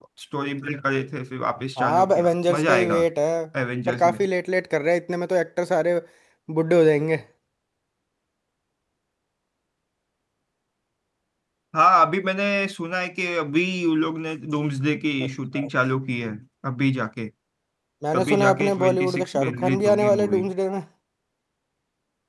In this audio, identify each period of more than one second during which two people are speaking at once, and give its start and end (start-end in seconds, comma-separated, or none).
1.8-3.0, 18.1-20.4